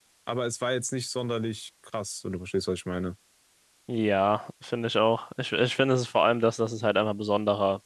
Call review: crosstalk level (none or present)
none